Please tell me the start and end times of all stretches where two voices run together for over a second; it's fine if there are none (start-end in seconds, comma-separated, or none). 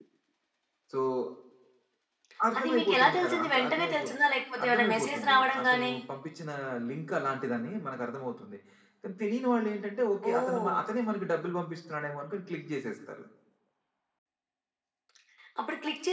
2.6-4.1, 4.6-5.9